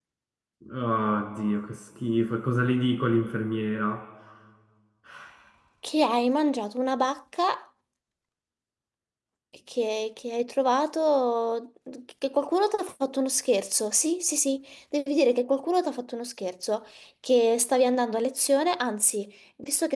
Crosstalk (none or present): none